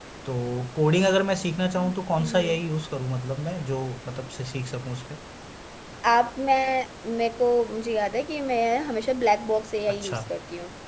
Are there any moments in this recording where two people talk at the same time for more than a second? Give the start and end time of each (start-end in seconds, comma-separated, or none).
none